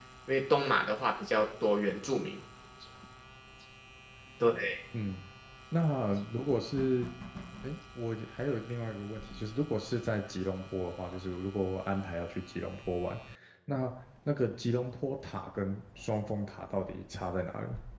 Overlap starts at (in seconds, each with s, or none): none